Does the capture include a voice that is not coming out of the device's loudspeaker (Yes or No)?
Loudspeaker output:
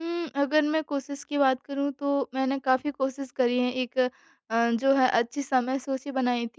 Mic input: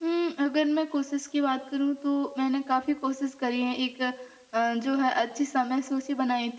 No